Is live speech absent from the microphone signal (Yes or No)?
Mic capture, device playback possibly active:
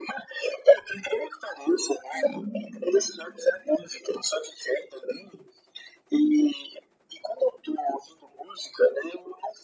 No